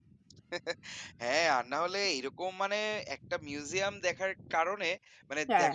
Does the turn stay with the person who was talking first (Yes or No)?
Yes